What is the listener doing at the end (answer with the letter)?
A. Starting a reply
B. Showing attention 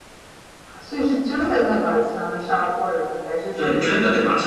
A